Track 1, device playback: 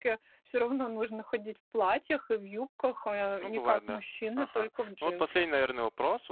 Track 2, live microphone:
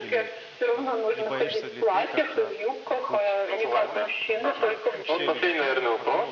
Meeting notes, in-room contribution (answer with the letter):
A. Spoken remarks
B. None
A